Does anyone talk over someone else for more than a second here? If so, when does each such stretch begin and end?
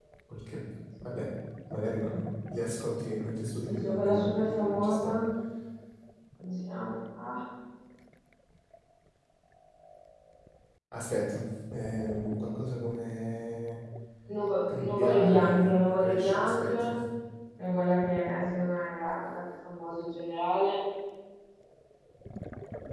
3.7-5.2, 14.7-16.9

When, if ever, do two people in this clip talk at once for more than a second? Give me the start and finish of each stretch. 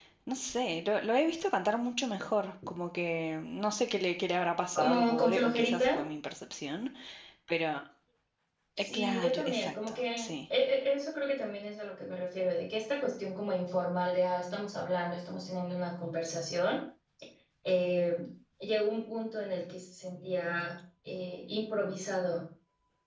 4.8-6.0, 8.8-10.3

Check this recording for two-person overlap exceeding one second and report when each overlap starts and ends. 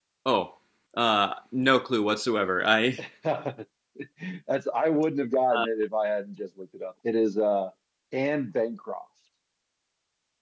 none

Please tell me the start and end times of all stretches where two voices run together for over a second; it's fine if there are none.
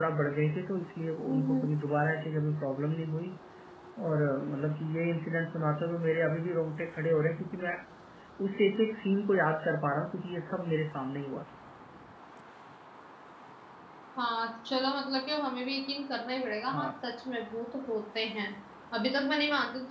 none

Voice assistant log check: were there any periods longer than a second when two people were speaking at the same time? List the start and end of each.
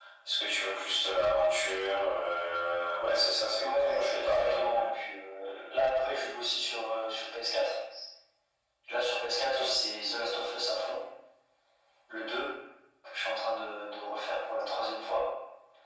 3.6-4.8

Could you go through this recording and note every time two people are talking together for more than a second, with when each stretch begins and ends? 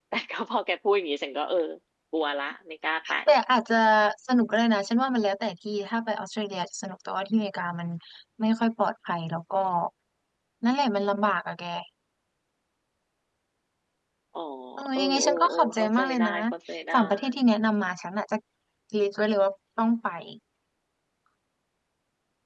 15.0-16.3

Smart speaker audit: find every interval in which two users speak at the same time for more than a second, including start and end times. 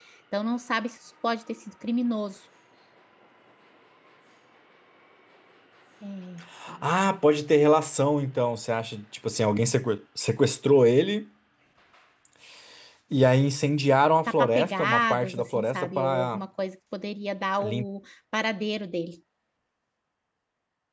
14.4-16.4

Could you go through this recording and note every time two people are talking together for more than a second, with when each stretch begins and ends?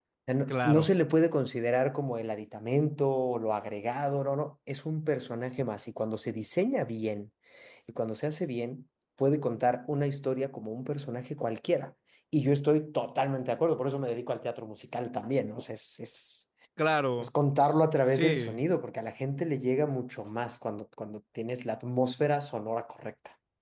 none

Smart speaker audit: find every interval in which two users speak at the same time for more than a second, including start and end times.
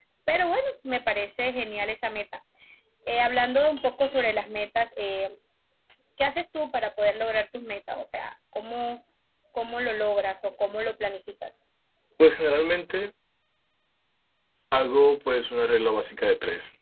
none

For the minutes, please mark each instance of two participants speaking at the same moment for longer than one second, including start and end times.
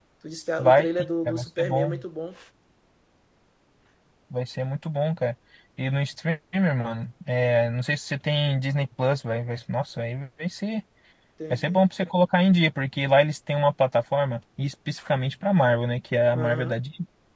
0.6-2.0

